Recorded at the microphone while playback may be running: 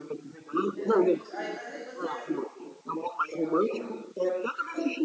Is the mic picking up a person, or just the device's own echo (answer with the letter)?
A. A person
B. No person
A